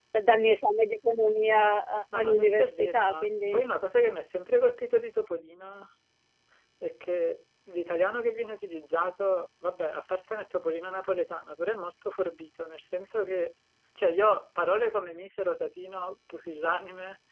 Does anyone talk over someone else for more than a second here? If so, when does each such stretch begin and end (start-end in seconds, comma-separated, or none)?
2.1-3.6